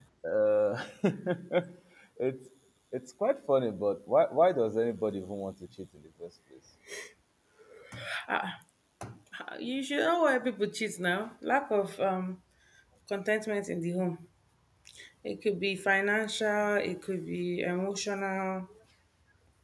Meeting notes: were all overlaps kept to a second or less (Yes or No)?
Yes